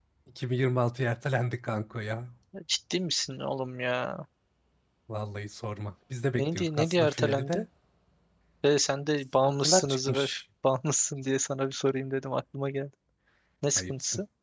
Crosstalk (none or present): present